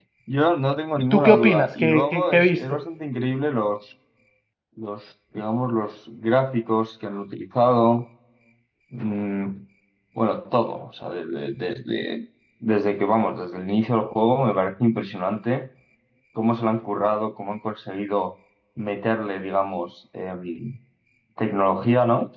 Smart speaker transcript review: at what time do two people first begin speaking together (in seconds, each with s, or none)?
1.1 s